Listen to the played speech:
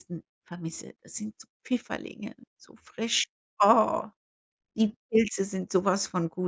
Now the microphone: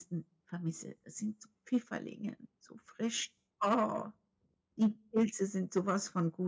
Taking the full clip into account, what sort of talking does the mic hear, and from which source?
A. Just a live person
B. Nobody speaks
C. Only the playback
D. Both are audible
C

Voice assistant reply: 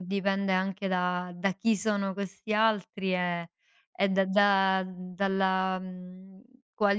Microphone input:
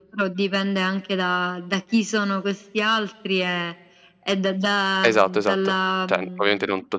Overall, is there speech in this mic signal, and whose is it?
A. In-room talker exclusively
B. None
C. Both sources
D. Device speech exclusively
C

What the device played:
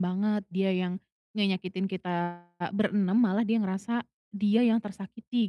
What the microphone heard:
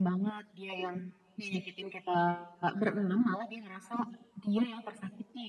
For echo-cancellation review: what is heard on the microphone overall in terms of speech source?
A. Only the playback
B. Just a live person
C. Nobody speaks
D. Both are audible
A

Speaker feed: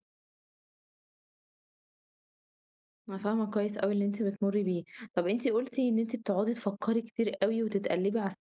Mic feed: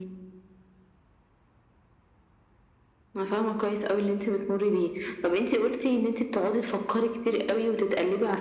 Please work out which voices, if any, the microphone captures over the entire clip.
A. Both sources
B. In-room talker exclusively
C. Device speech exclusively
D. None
A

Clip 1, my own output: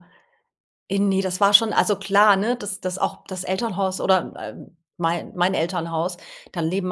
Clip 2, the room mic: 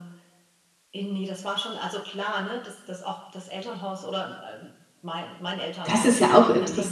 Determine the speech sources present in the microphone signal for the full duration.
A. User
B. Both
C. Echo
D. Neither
B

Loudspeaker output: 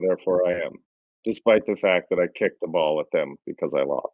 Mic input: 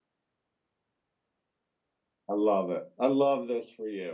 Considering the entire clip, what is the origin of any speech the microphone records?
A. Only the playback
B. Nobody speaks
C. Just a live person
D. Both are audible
C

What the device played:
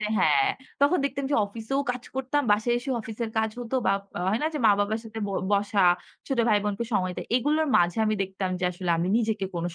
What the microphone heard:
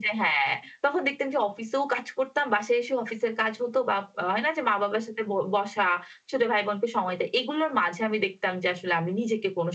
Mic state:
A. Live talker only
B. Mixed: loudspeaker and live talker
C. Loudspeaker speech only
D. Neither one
C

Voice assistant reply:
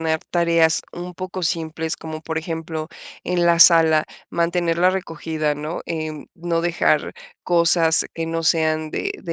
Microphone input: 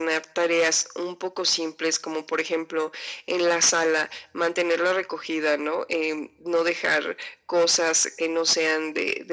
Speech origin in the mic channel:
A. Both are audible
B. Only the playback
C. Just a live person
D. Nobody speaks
B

